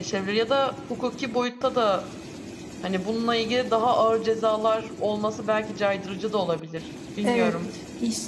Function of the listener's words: taking over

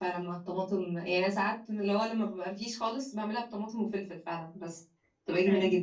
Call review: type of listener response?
taking over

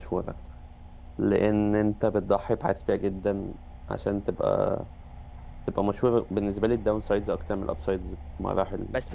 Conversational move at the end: taking over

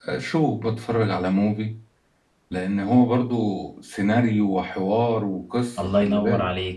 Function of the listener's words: taking over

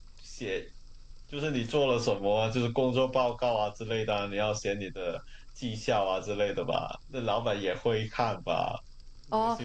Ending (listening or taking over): taking over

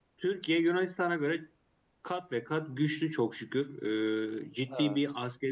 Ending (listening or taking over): listening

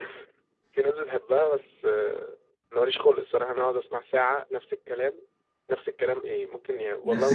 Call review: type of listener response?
listening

